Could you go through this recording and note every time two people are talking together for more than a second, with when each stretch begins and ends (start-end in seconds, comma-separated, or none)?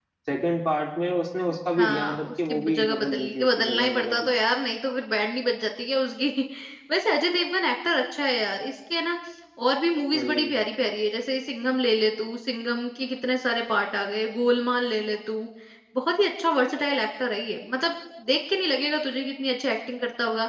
1.8-4.3